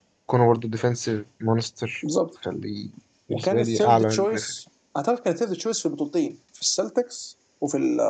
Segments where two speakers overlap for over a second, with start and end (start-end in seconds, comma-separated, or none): 3.3-4.5